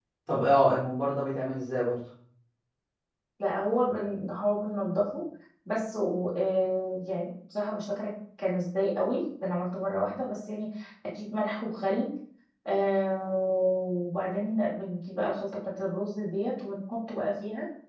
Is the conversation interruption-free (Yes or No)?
Yes